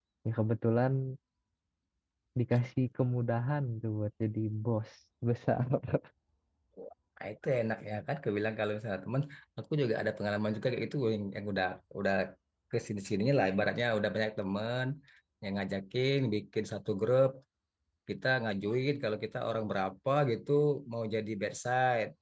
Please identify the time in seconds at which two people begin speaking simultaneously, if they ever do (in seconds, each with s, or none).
none